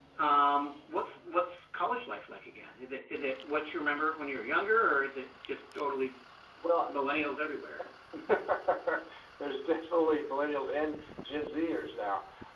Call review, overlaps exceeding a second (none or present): none